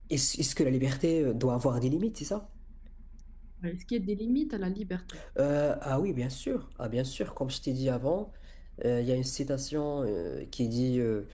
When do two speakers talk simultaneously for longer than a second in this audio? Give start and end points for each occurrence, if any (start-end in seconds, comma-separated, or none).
none